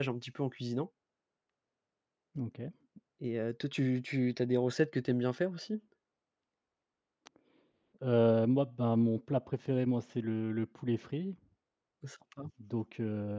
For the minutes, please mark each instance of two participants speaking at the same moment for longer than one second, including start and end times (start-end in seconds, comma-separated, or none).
none